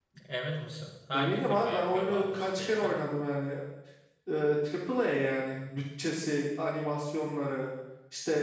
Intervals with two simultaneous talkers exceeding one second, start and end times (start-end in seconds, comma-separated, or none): 1.1-2.9